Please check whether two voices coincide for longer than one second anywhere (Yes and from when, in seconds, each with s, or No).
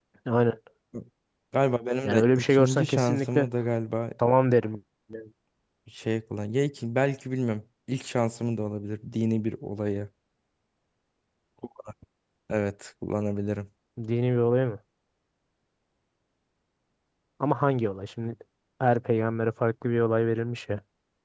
Yes, from 2.0 s